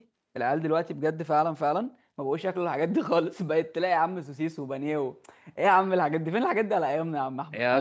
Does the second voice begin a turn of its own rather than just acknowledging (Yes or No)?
Yes